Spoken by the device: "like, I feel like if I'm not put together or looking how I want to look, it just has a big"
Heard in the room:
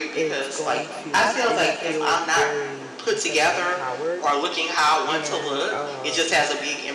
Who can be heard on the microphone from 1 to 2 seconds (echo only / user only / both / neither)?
both